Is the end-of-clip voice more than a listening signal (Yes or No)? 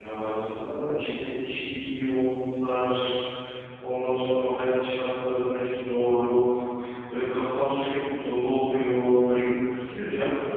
No